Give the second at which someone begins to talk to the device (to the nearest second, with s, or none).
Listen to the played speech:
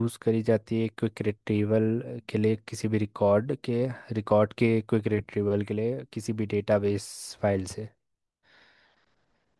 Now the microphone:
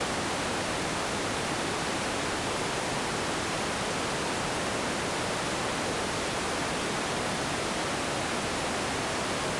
none